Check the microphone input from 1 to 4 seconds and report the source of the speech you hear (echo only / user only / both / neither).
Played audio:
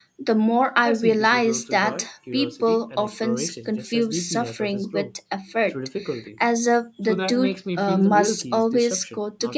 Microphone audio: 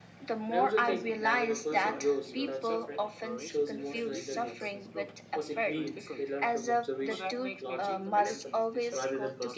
both